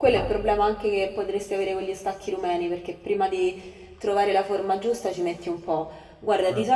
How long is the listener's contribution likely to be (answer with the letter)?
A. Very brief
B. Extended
A